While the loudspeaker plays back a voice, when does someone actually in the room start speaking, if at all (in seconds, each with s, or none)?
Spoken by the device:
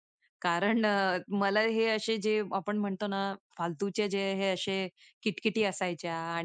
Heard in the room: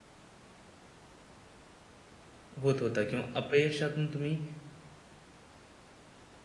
2.6 s